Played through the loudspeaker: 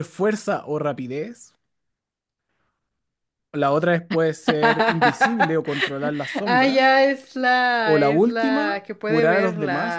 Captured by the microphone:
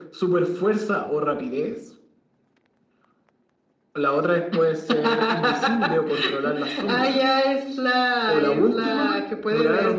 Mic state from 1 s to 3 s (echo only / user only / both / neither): echo only